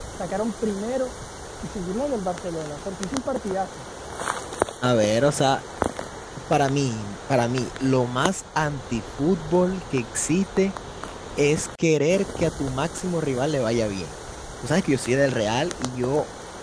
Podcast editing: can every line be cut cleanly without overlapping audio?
Yes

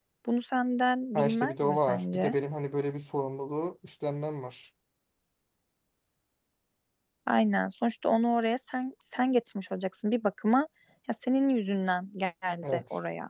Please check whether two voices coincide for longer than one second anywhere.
Yes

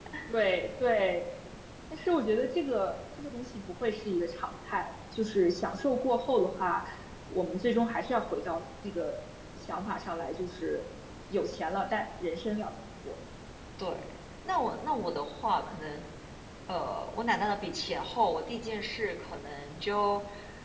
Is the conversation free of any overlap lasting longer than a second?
Yes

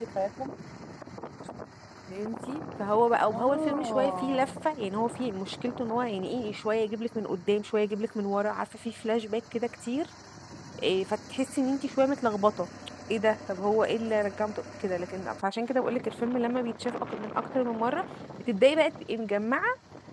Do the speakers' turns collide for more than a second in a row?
Yes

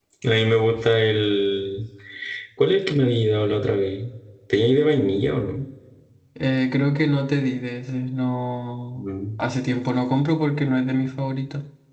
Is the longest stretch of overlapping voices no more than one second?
Yes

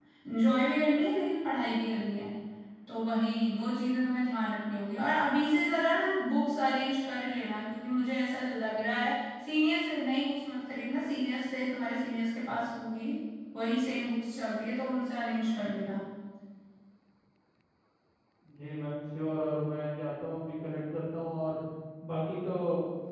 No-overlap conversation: Yes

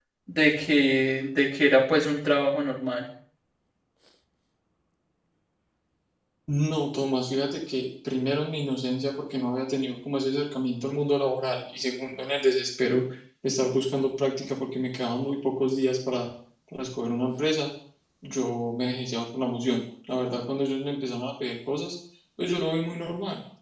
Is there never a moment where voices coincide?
Yes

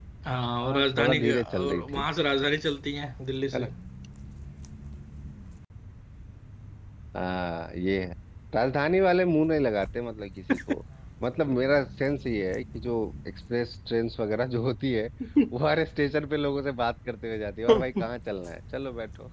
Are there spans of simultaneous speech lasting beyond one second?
Yes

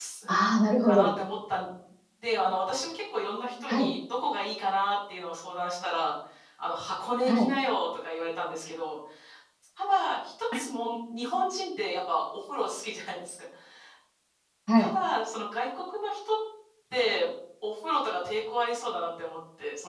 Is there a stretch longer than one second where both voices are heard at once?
No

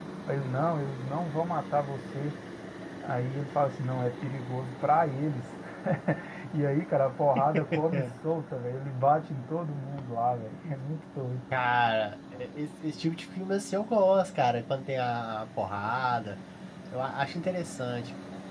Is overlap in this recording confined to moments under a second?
Yes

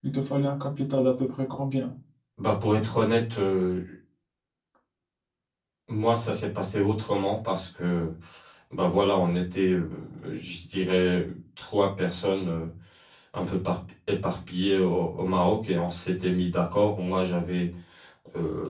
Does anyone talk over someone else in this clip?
No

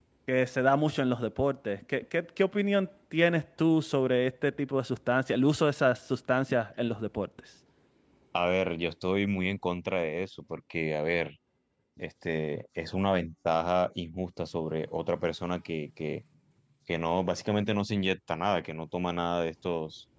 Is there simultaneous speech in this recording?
No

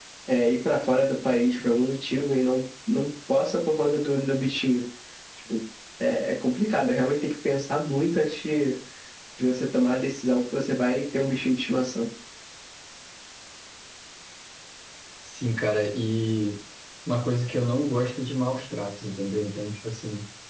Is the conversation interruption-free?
Yes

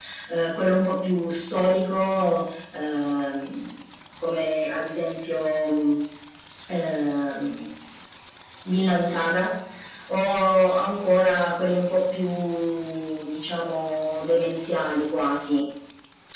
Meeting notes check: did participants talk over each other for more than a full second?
No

